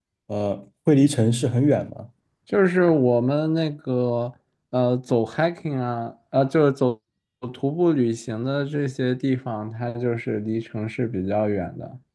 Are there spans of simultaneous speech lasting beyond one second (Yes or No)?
No